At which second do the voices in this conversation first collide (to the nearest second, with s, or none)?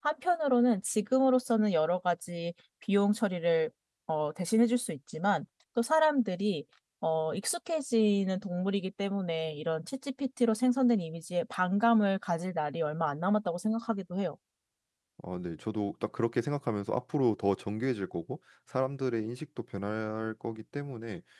none